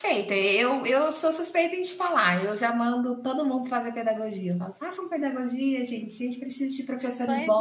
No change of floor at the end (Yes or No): No